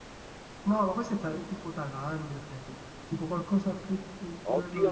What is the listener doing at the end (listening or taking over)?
taking over